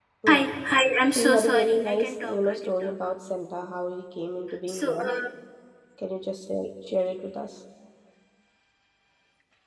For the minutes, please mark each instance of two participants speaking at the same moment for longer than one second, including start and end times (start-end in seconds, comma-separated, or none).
1.1-2.9